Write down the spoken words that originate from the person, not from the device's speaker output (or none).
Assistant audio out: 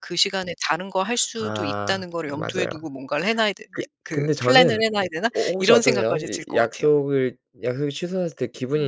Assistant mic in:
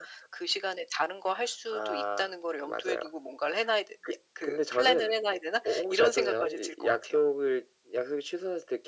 none